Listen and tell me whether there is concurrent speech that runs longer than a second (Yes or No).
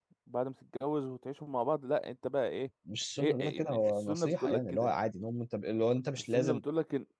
Yes